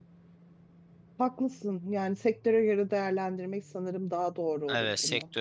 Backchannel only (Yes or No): No